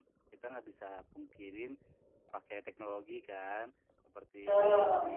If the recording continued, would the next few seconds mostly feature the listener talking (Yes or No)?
No